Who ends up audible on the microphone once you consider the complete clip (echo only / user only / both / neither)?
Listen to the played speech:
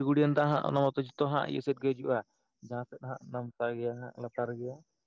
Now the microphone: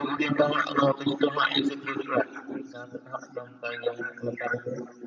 echo only